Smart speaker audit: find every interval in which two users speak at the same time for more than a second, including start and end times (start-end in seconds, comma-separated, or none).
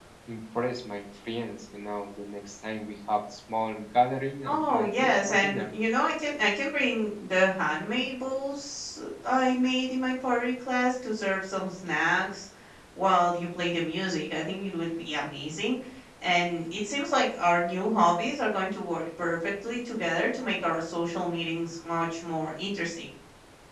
4.4-5.7